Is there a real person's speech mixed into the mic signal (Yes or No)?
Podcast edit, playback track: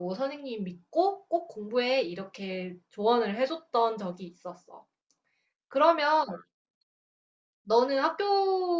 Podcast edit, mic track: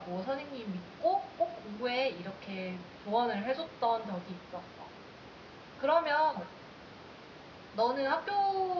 No